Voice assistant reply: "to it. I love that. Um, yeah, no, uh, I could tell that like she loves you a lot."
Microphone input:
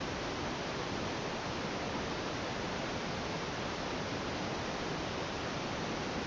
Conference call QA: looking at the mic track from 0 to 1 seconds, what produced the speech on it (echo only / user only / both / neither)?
neither